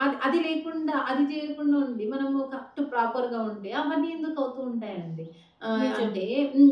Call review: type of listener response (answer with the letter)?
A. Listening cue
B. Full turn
A